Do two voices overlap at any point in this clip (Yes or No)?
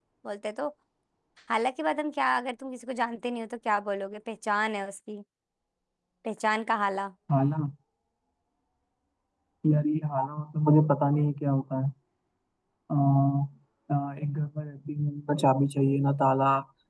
No